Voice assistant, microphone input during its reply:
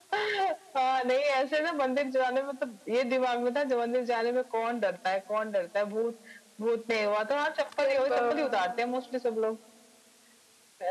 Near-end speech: present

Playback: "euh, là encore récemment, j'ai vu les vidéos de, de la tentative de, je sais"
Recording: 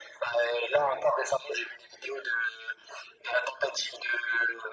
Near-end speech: none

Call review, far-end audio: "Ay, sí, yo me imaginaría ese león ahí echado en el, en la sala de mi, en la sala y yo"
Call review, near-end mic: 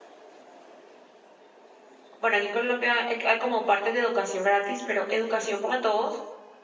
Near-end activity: present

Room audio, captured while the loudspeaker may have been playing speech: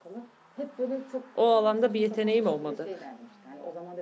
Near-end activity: present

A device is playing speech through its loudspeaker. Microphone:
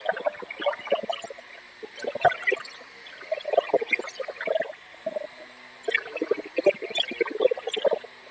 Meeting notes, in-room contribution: none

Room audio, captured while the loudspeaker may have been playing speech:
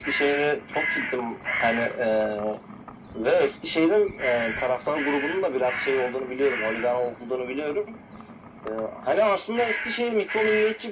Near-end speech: none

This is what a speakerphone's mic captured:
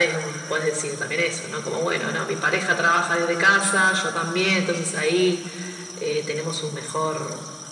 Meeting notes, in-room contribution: none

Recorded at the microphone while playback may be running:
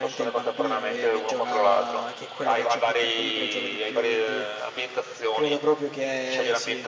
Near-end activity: present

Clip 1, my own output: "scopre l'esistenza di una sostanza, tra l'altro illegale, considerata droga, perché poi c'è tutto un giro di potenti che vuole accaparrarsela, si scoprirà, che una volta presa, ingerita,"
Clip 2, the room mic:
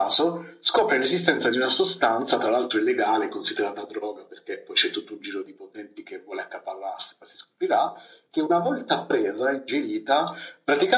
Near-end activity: none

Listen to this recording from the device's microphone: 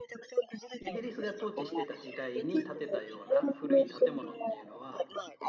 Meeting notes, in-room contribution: present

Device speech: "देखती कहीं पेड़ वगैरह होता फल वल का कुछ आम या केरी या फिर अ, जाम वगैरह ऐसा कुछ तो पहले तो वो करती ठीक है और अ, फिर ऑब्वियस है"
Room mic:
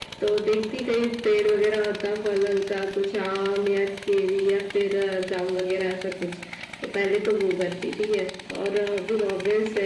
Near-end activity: none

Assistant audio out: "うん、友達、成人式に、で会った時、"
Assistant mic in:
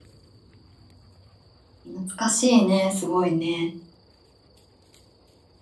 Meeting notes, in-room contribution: present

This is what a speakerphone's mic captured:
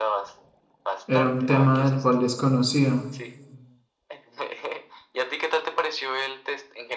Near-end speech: present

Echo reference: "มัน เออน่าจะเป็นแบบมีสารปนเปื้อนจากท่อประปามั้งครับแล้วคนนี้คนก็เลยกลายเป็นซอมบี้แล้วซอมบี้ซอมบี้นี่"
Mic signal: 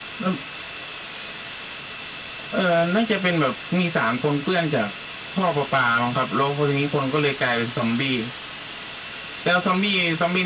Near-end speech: none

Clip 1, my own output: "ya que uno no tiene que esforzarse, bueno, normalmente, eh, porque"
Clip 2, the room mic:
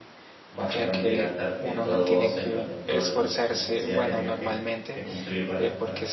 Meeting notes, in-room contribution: present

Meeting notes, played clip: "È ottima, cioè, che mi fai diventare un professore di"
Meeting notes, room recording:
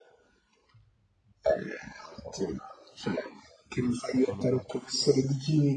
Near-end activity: present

